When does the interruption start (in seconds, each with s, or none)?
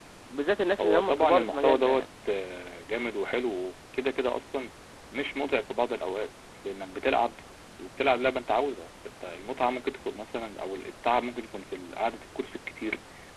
0.8 s